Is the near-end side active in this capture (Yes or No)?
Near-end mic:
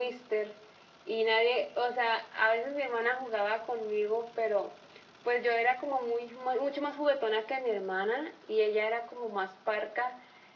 No